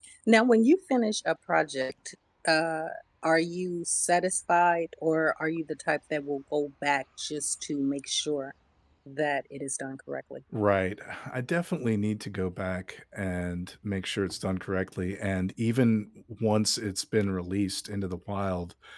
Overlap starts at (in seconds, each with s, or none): none